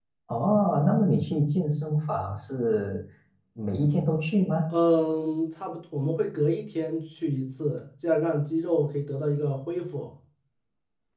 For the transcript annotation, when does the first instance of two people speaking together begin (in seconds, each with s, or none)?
none